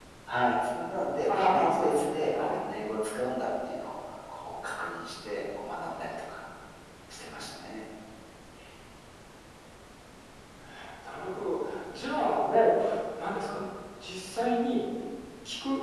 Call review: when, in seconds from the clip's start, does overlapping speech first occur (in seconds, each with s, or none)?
1.3 s